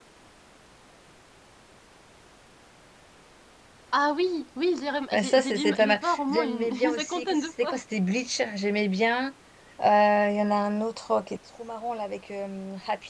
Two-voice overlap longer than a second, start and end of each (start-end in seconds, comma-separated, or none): 5.1-7.8